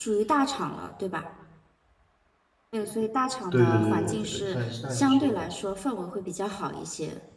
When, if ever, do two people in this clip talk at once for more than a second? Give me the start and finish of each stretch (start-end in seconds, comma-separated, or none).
3.5-5.5